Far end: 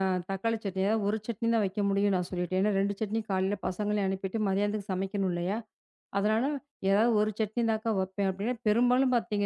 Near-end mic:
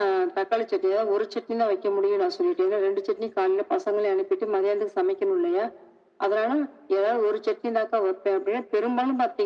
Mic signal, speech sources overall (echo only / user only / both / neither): echo only